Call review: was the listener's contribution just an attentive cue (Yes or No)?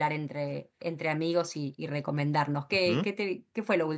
Yes